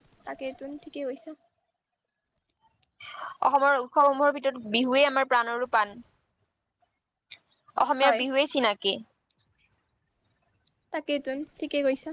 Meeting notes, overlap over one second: none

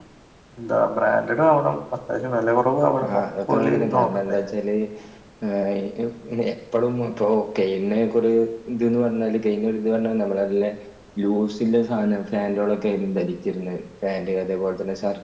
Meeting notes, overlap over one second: present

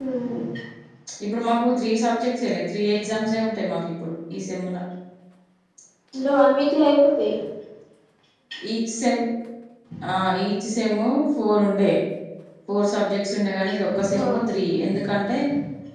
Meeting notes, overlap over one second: none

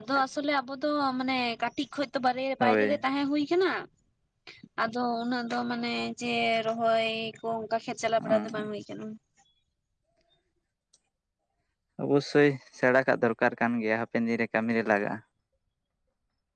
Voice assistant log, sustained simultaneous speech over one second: none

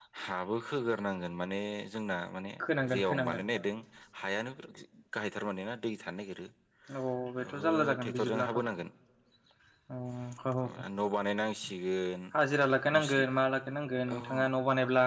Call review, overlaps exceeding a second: present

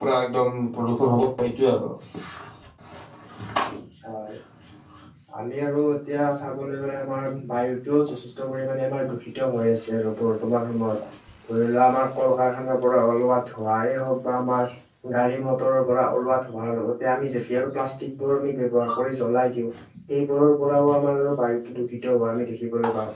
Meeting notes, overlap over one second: none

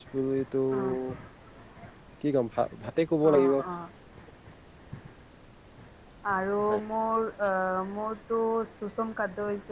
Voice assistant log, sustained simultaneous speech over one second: none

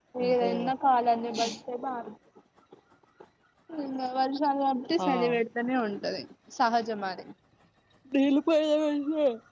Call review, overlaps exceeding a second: none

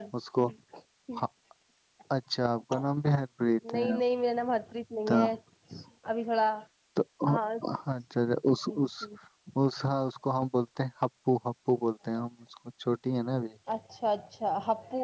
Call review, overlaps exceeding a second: none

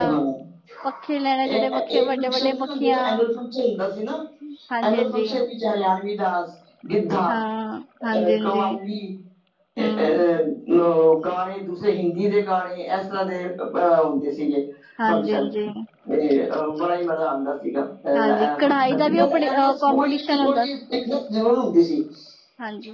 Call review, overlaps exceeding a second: present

